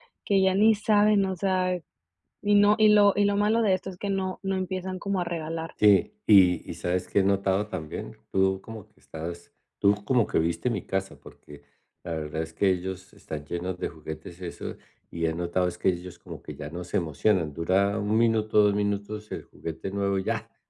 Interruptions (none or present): none